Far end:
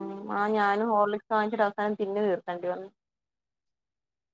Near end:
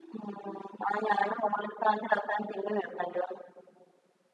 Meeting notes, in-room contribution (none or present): none